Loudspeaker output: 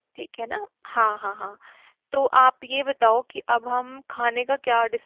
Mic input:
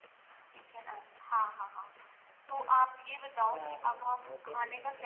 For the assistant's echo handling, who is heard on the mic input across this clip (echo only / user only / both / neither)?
both